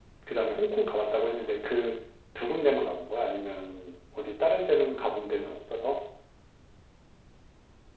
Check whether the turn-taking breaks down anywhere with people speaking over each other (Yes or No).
No